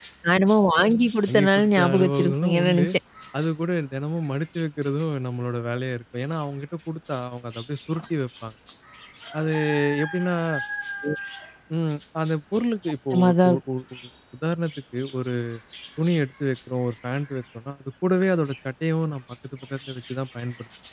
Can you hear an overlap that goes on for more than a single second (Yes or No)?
Yes